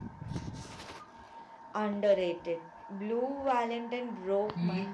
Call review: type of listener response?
taking over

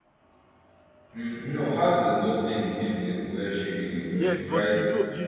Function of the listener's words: taking over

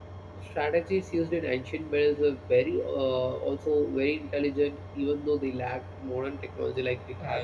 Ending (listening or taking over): taking over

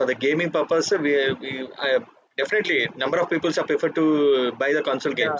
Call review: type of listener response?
taking over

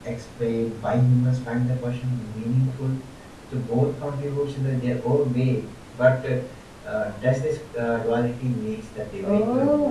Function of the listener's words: taking over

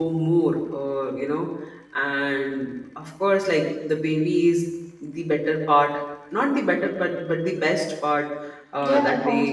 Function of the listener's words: taking over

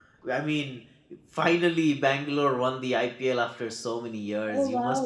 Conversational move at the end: taking over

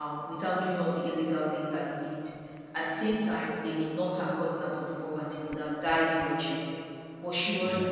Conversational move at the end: listening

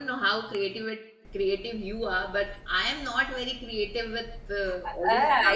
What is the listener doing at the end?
taking over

